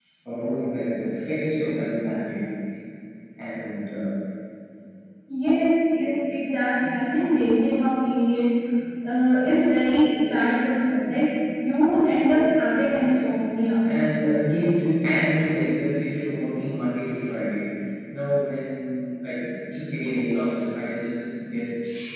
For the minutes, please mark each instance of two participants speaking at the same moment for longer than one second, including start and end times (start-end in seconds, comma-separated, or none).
none